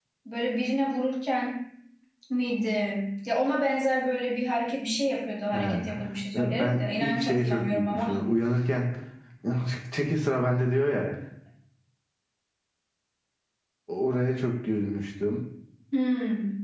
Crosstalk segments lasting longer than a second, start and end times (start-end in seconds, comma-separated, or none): 6.6-8.2